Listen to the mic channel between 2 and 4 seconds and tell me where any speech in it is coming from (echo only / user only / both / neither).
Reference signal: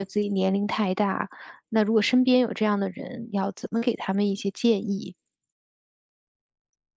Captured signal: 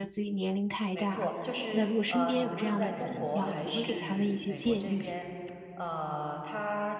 both